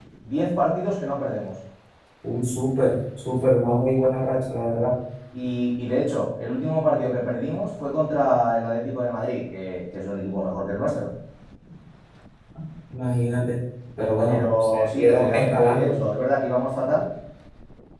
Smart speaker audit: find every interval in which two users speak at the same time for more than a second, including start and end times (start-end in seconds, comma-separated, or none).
14.2-16.0